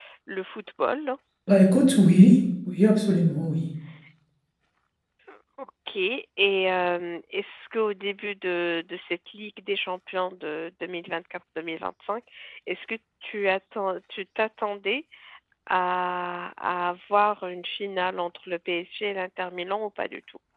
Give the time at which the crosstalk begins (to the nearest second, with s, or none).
none